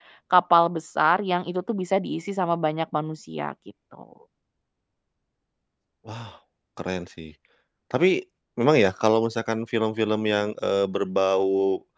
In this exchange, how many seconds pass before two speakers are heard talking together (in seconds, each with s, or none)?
none